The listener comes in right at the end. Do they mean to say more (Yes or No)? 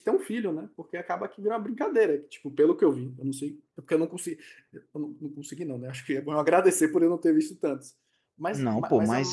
Yes